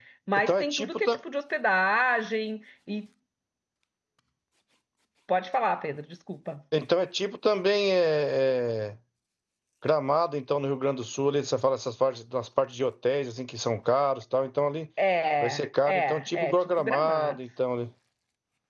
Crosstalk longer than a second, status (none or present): present